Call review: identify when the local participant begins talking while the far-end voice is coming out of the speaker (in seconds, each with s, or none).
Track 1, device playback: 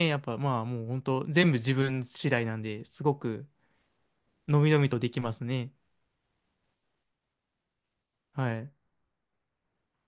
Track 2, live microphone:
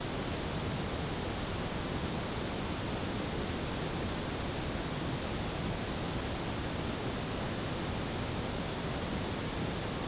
none